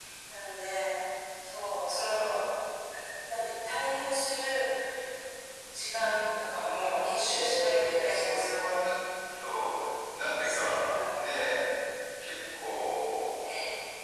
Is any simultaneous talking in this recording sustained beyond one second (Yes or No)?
Yes